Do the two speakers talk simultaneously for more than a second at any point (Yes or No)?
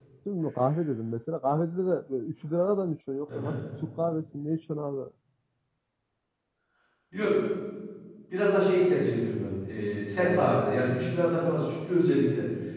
No